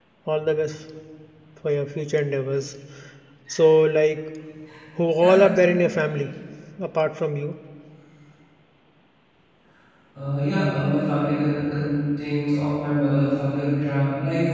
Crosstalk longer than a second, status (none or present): none